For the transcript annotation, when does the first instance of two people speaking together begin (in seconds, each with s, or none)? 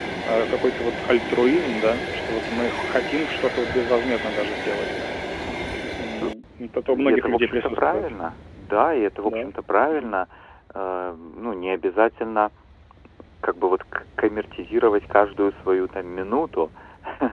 6.9 s